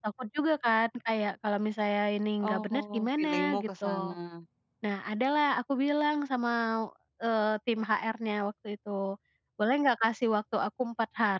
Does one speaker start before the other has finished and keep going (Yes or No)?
Yes